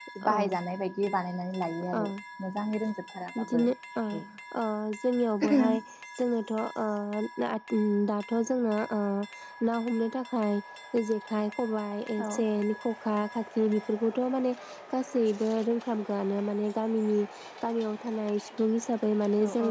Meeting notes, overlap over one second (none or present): none